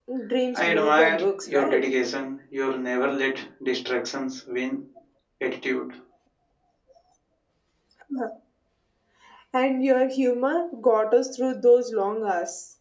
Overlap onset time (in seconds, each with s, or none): 0.6 s